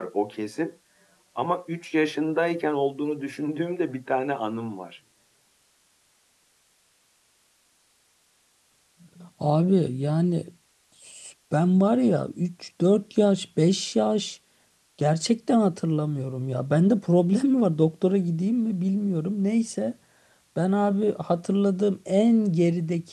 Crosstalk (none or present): none